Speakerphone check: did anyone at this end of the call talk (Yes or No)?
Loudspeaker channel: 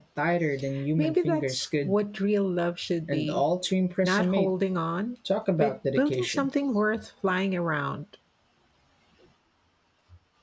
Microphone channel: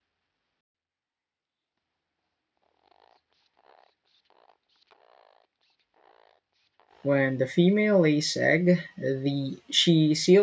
Yes